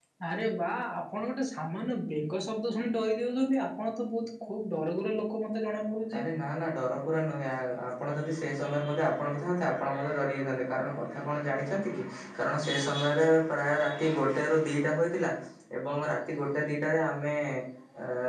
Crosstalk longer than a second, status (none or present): none